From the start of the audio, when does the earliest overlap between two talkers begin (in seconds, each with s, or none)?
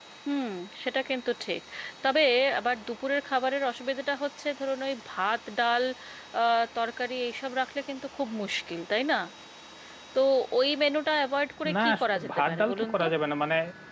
11.6 s